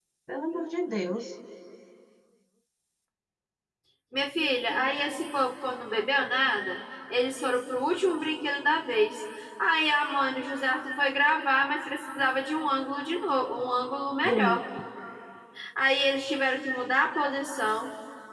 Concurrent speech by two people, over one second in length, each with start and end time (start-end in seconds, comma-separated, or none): none